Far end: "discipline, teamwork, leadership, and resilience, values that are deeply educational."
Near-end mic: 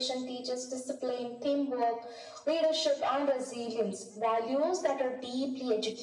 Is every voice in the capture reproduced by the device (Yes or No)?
Yes